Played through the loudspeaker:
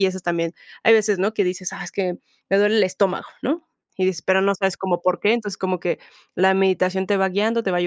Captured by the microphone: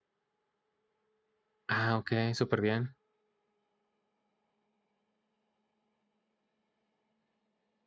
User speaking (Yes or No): Yes